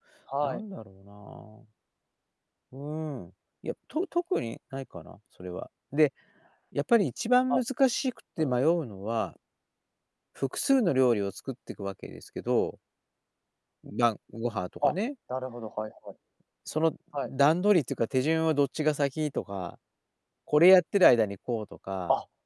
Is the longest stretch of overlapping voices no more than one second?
Yes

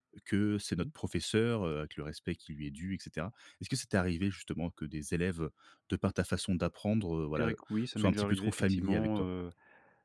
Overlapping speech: Yes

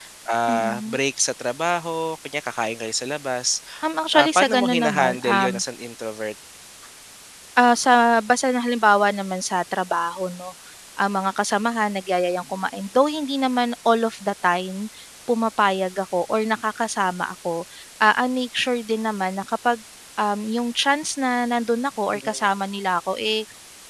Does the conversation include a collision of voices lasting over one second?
Yes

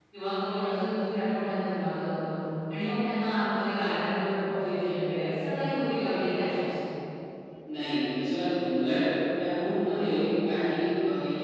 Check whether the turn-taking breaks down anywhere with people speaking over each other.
No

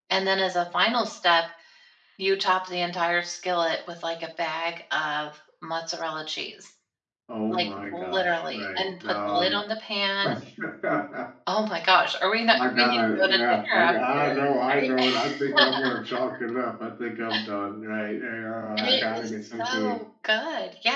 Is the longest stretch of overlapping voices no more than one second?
No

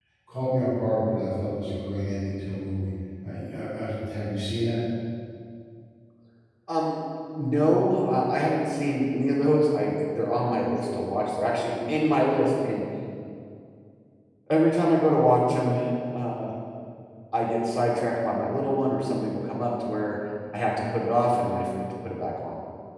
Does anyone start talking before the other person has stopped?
No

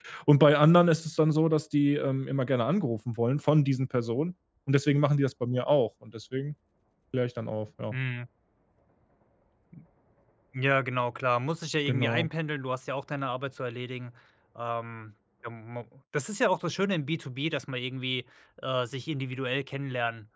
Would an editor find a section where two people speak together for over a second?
No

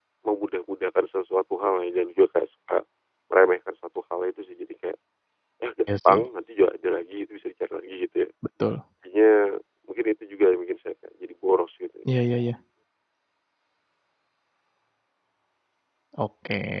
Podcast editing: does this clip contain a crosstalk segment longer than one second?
No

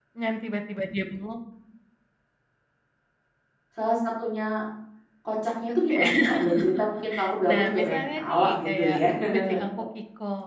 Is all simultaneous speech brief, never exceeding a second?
No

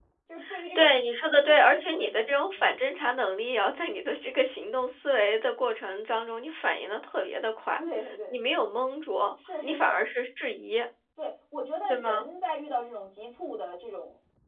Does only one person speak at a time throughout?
No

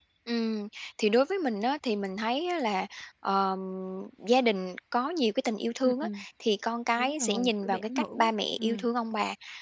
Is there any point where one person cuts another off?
Yes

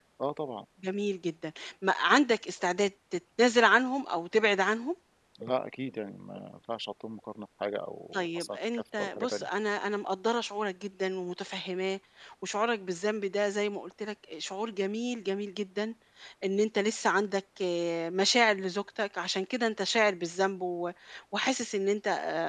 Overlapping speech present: Yes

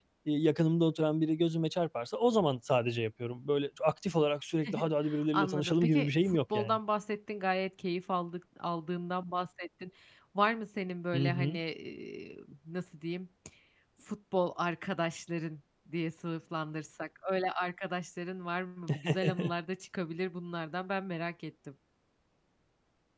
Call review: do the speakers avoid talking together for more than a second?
No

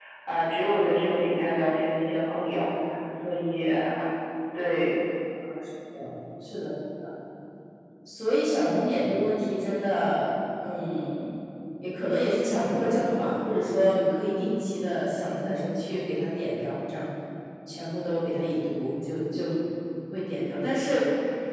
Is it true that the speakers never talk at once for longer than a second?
Yes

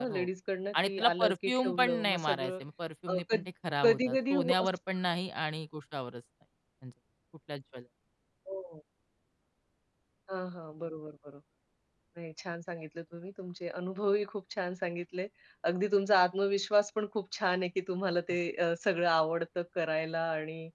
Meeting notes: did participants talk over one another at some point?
Yes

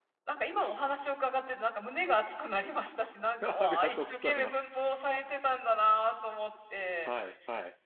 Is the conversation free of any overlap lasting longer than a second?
No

